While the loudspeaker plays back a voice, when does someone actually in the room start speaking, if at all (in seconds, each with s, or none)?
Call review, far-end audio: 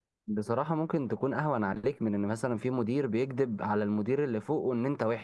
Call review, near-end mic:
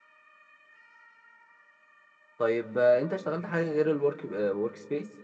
2.4 s